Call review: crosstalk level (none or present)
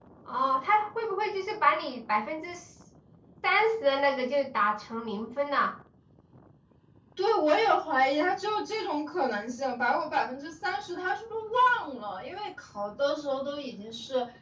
none